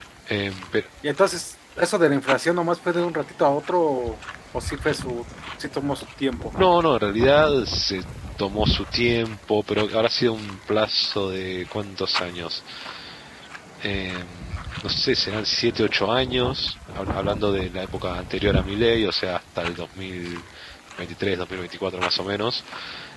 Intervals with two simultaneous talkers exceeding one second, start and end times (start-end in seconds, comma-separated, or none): none